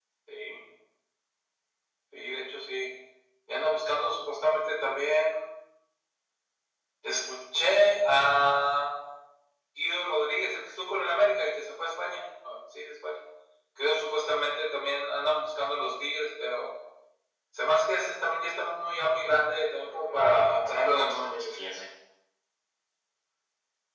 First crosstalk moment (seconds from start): 20 s

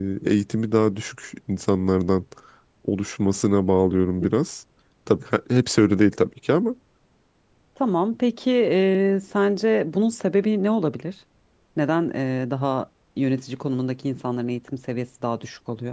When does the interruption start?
none

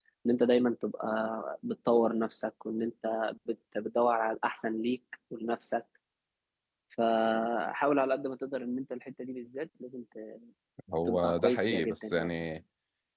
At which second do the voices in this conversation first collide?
11 s

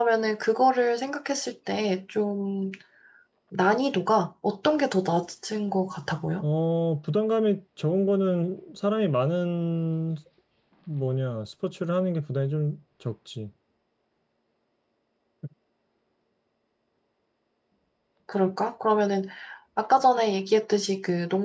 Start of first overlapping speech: none

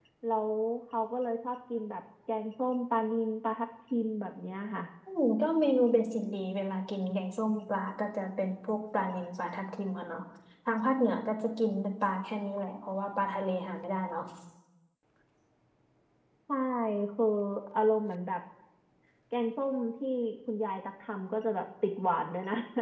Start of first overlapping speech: none

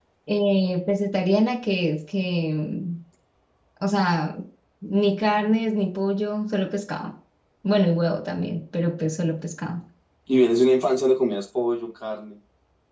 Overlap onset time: none

